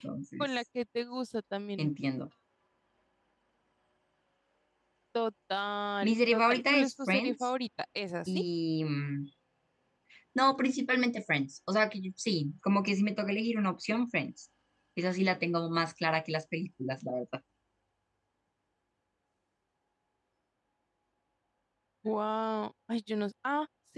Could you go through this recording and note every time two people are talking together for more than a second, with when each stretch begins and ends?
6.0-7.5

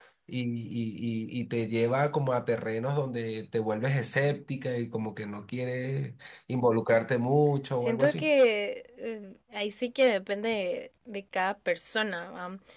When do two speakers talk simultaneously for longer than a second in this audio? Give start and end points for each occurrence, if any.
none

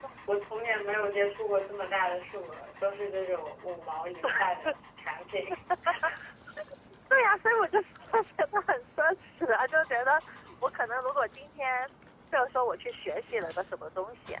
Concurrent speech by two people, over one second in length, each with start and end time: none

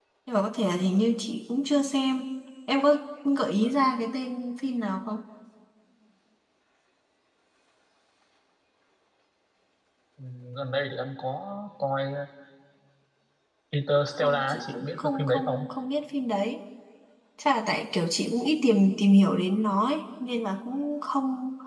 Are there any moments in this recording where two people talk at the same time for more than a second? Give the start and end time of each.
14.1-15.7

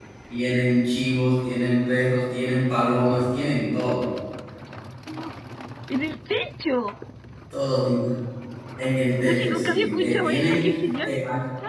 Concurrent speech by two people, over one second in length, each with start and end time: 9.2-10.7

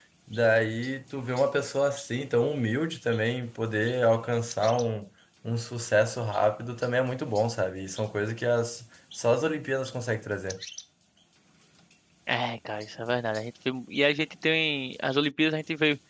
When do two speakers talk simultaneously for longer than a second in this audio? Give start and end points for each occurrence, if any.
none

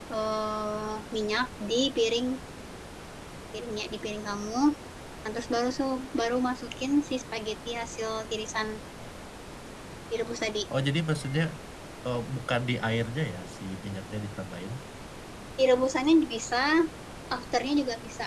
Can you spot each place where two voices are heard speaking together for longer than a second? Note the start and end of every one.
none

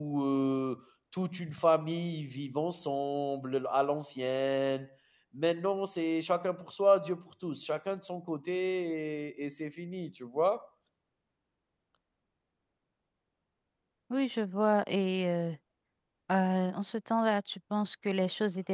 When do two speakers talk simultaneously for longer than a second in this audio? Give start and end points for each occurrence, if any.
none

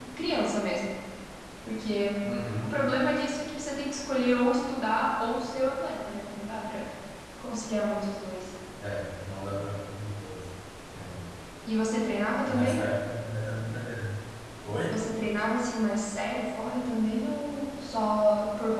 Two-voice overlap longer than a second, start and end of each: none

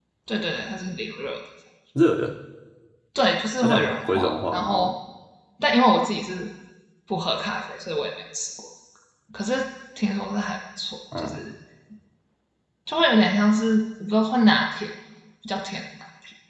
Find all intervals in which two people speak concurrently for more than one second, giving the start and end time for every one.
3.6-4.9

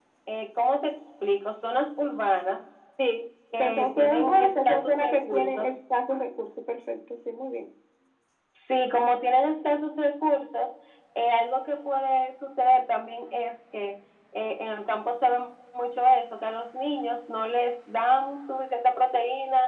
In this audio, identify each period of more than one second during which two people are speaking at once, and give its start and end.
3.6-5.8

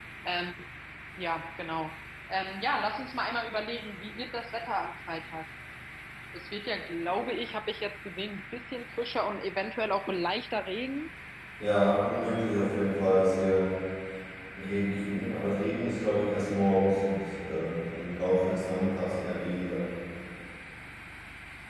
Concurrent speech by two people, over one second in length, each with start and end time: none

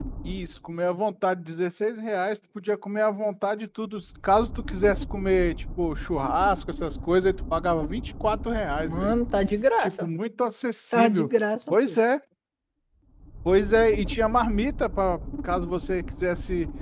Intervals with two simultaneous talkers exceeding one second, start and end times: none

